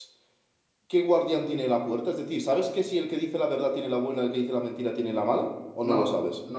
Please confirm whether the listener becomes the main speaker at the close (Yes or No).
Yes